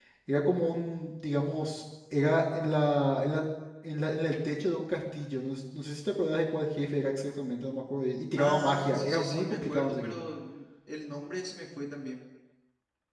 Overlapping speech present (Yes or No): Yes